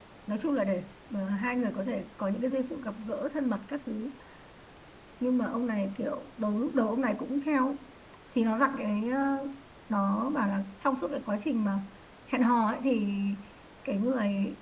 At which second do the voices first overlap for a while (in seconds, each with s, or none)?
none